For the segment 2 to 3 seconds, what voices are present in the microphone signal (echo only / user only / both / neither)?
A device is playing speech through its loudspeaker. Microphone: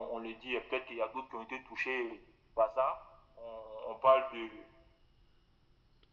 echo only